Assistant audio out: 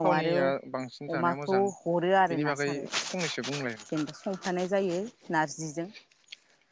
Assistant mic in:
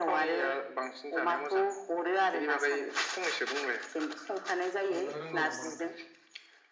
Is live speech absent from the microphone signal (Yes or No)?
No